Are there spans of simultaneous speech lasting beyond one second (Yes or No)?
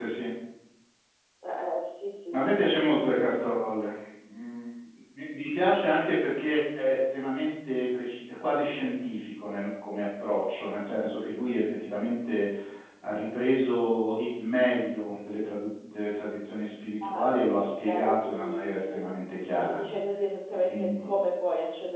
Yes